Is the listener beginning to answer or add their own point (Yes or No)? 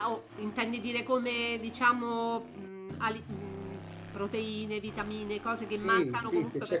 Yes